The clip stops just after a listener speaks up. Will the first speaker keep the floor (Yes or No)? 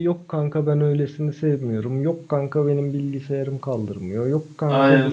No